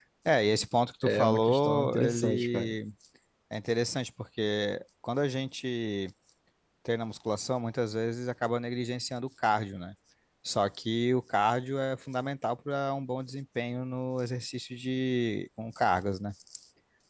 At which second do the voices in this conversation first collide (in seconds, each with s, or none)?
1.0 s